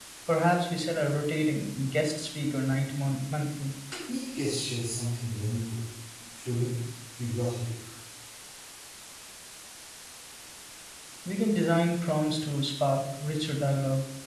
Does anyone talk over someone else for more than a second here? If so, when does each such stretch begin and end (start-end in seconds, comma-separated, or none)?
none